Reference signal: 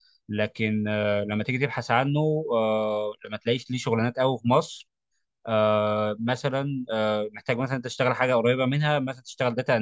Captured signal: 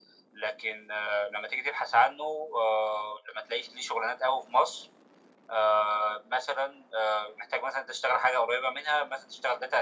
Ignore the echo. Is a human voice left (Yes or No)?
No